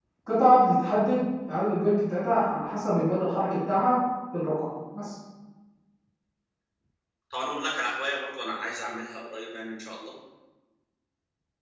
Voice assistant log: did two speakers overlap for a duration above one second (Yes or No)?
No